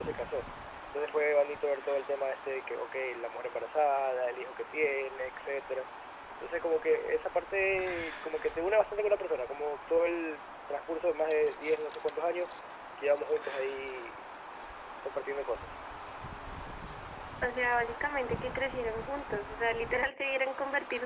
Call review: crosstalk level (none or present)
none